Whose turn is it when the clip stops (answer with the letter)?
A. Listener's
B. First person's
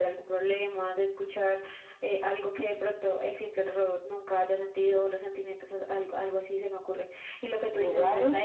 B